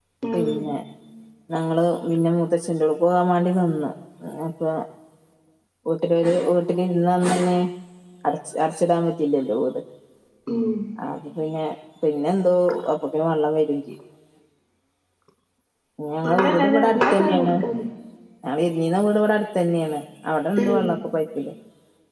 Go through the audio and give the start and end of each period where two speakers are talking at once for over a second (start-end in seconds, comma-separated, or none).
16.2-17.5